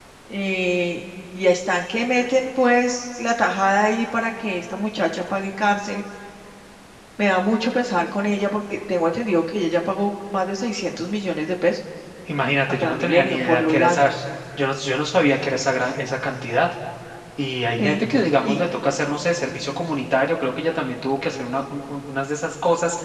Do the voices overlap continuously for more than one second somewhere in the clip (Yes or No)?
Yes